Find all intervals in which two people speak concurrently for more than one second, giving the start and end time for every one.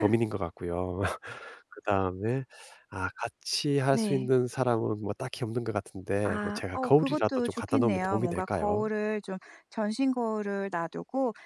6.2-8.8

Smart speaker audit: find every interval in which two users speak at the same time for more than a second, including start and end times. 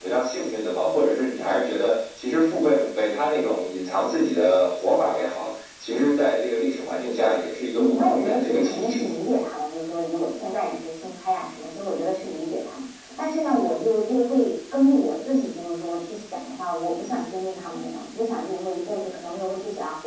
7.8-9.0

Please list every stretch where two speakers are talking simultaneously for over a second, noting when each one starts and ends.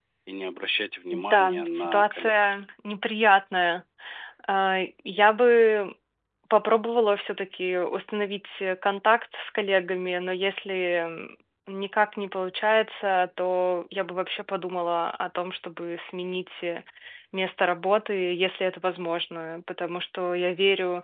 1.1-2.3

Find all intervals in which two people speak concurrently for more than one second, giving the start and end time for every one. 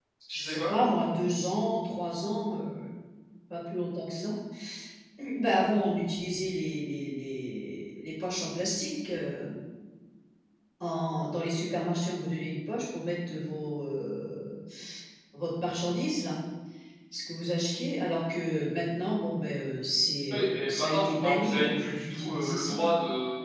20.3-22.8

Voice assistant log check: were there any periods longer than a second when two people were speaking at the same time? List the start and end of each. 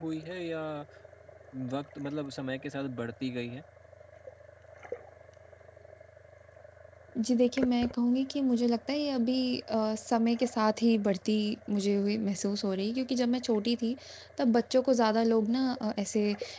none

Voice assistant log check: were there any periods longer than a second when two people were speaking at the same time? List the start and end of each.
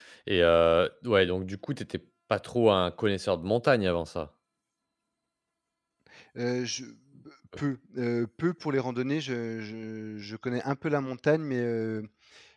none

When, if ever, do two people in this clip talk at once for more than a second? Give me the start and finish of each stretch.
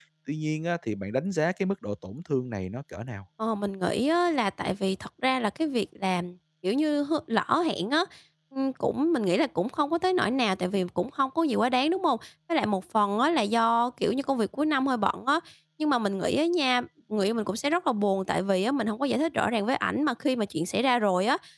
none

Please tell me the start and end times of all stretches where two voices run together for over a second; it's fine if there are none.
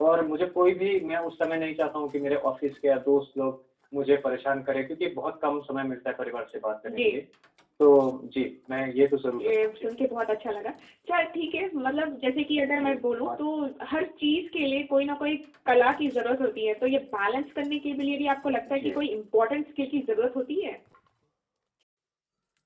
none

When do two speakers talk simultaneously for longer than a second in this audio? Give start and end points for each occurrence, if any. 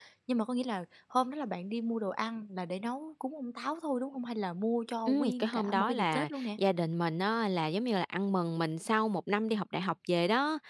5.1-6.5

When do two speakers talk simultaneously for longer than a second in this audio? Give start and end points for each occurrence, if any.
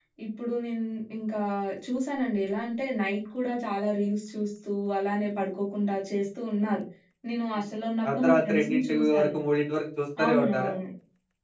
8.1-9.3

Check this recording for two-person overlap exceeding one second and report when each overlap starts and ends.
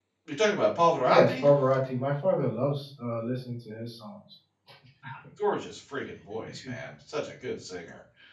none

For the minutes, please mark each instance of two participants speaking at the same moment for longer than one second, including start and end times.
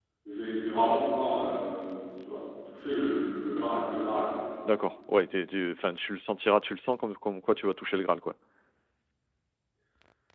none

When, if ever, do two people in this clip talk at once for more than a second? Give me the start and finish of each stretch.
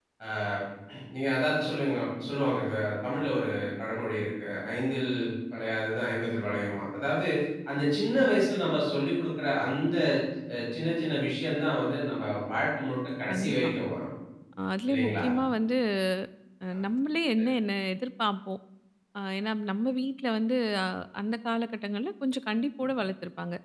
none

